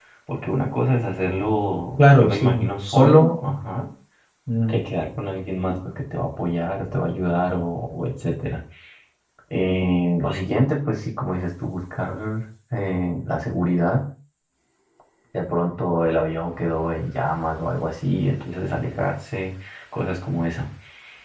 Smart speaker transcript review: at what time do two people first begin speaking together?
2.0 s

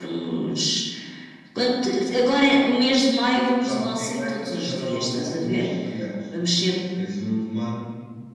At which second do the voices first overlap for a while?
3.6 s

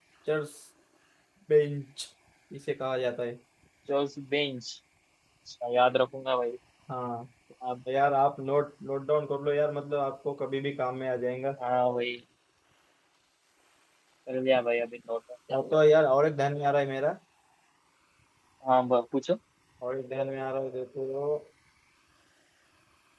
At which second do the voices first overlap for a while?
none

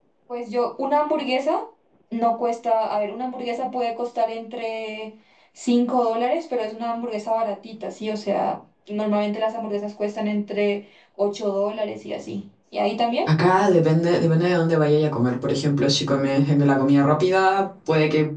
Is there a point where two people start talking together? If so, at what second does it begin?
none

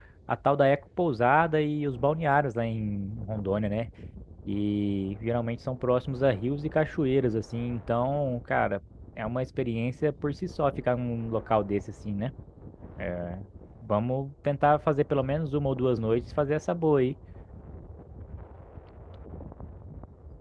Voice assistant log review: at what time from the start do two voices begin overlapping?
none

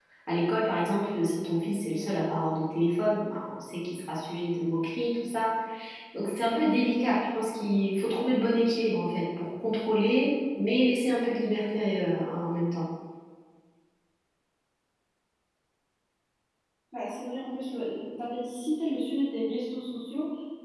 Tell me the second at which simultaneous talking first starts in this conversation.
none

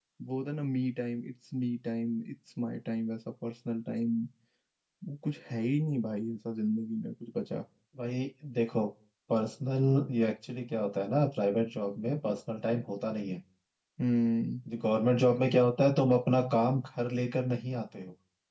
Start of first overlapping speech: none

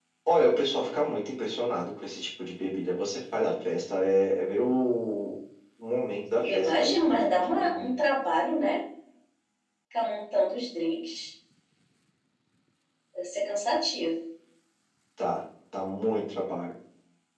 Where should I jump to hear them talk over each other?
6.4 s

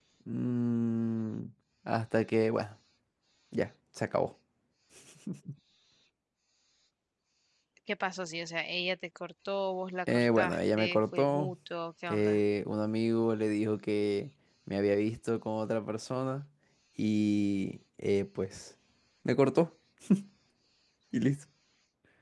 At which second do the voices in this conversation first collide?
10.1 s

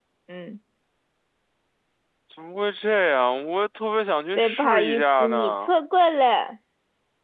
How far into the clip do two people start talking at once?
4.3 s

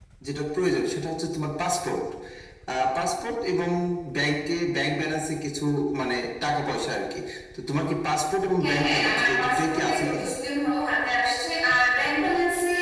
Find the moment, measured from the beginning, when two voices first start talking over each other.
8.6 s

